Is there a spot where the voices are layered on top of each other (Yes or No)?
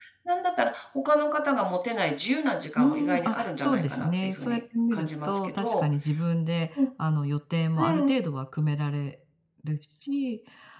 Yes